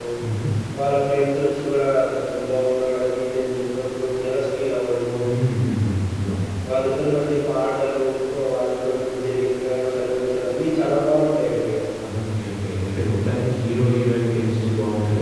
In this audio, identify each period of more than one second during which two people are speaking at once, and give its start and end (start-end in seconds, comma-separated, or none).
none